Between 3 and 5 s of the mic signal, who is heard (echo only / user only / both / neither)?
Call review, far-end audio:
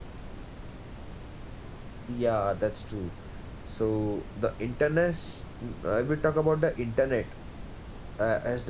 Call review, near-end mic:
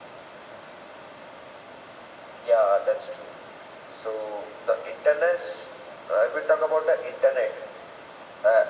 echo only